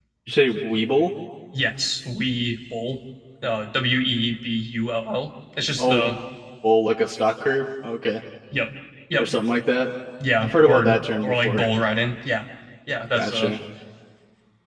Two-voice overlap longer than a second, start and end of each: 10.4-11.7

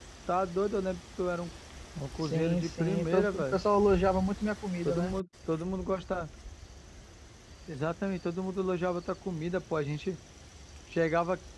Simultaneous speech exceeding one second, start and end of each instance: 2.2-3.6

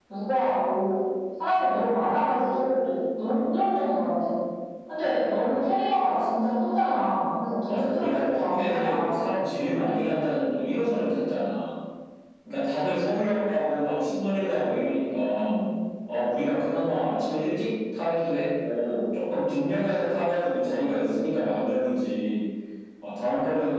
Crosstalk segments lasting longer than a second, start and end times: 7.7-9.1

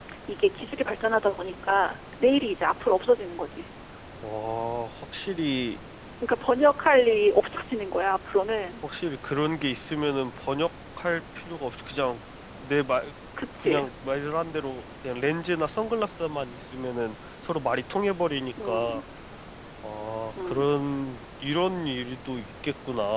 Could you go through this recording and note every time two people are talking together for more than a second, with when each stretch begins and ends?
none

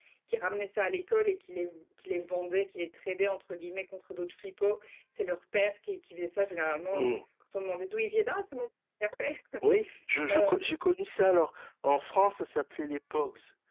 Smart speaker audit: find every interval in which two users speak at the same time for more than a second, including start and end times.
none

